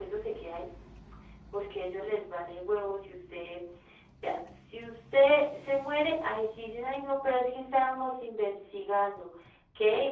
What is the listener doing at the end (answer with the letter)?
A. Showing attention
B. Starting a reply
A